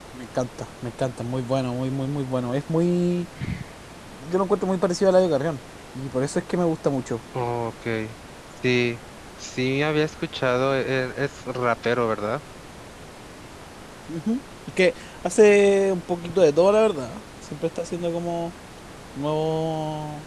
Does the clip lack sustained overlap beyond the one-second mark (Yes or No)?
Yes